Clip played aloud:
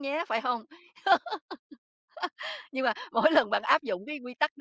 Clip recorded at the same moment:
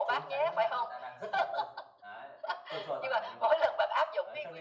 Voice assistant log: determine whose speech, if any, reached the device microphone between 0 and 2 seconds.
both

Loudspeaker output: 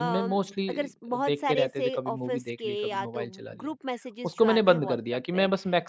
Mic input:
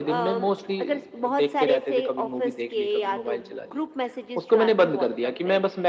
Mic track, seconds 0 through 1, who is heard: echo only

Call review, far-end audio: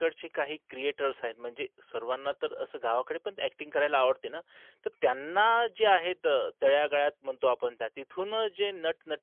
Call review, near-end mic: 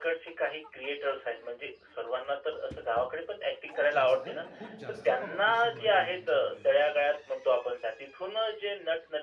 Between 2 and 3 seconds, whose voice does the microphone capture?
echo only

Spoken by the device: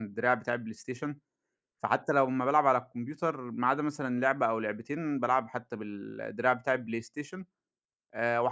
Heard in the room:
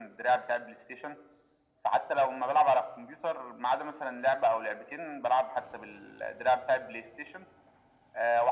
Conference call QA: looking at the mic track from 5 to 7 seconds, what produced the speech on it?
echo only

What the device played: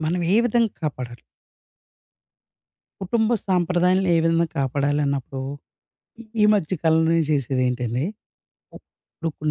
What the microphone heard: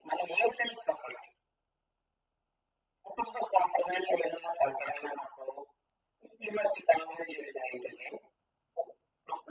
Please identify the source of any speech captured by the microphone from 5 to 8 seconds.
echo only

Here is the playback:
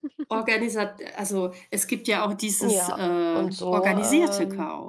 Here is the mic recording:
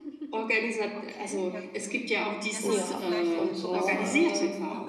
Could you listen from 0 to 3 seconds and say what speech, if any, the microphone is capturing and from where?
both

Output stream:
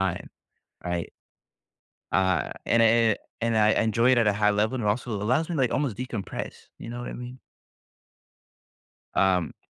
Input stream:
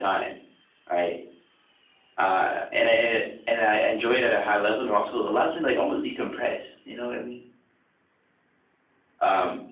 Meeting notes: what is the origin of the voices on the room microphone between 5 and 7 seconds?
echo only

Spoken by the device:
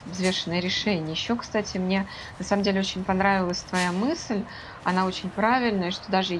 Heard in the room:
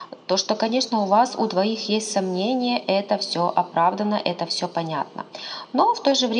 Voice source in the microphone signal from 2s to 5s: user only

